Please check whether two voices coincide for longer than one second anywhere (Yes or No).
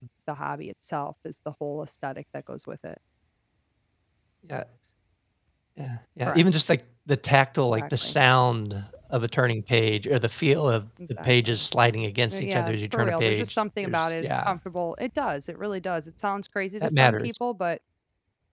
Yes